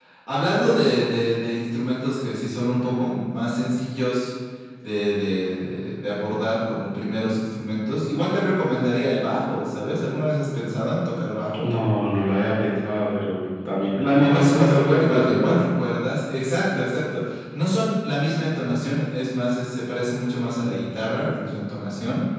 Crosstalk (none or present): present